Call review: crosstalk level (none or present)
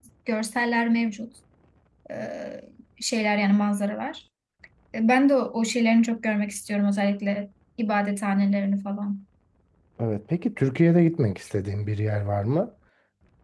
none